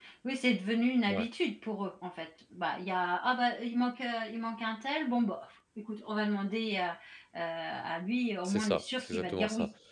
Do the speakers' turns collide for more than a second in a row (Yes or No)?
Yes